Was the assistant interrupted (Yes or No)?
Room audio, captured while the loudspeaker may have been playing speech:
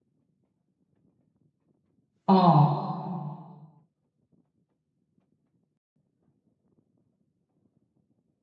Yes